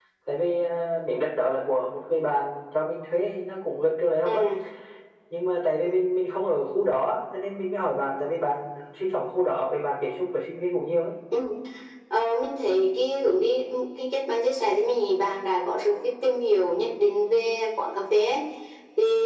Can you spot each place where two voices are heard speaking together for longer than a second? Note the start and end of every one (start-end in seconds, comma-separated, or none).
none